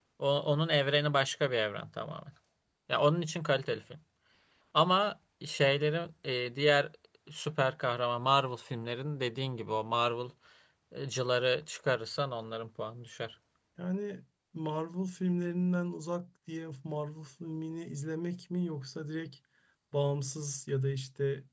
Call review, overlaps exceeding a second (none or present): none